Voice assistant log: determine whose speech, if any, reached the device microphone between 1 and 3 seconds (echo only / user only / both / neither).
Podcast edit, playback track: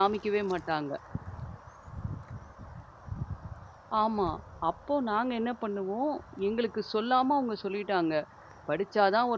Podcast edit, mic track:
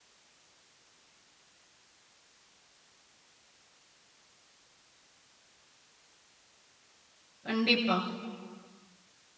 neither